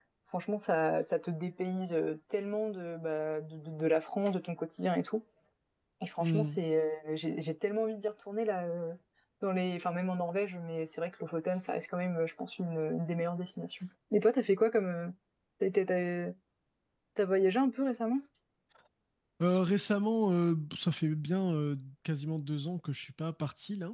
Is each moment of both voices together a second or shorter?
Yes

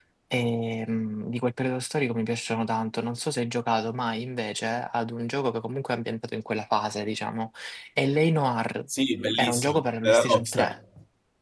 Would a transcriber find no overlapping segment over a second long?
No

